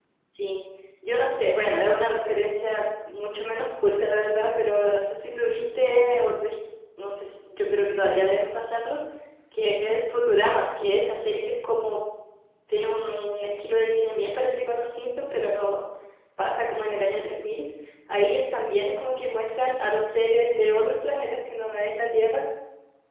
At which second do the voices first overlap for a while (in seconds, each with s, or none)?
none